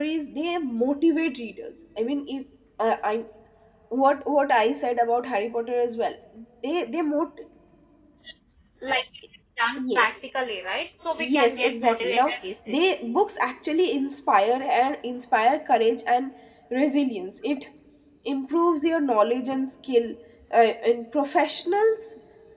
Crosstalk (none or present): present